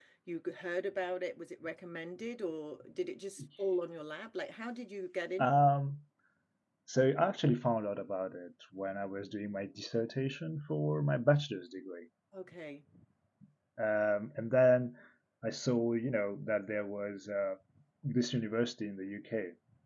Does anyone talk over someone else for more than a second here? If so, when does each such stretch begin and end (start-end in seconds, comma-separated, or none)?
none